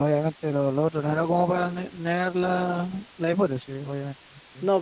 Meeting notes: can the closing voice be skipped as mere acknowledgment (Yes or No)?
No